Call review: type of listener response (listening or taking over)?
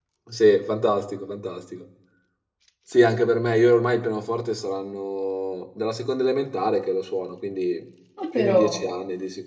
listening